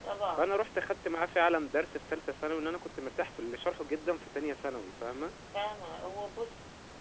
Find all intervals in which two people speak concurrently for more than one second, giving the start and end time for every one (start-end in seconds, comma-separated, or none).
none